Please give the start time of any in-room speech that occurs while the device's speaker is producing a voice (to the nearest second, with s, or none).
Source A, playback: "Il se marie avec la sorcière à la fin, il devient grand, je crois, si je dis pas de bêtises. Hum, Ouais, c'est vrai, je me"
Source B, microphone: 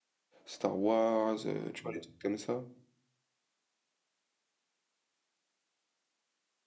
0 s